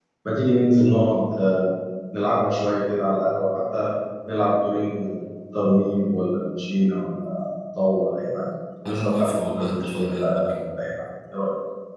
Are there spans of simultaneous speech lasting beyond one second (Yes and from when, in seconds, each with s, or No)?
Yes, from 8.8 s